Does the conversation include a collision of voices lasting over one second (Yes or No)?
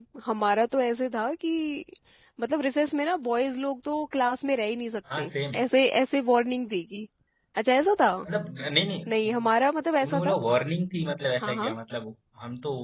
No